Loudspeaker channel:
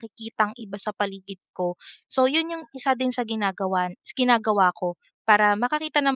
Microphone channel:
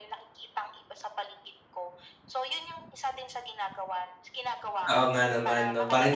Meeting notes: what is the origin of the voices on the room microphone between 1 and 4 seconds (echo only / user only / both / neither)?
echo only